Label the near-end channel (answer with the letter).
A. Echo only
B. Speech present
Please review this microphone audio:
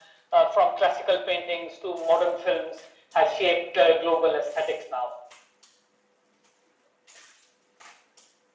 A